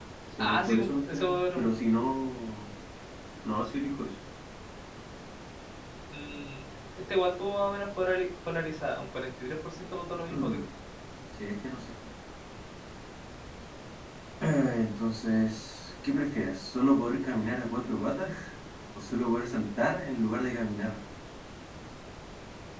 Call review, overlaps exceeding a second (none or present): present